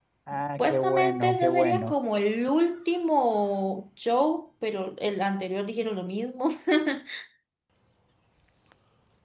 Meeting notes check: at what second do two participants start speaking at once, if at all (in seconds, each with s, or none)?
0.6 s